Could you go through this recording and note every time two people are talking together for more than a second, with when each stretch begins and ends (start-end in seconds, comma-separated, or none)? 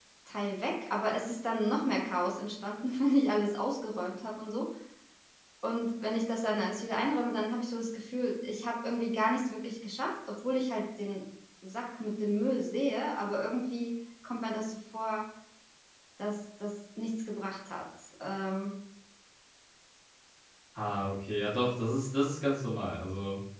none